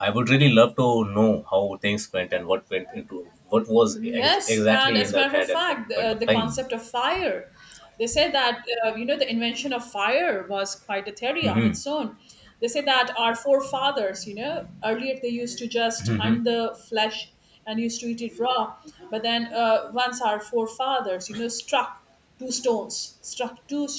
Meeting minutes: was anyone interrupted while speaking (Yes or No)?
Yes